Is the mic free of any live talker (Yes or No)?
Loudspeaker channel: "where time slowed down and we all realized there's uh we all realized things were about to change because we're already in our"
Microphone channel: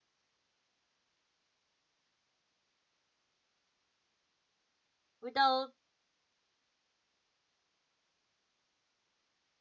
No